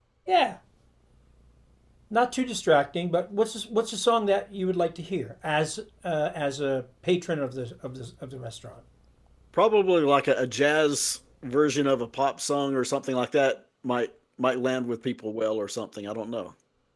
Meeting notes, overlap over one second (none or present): none